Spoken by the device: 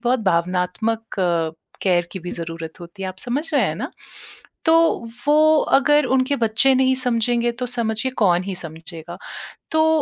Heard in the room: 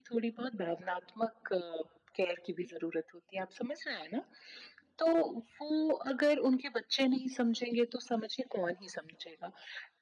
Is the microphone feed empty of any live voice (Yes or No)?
Yes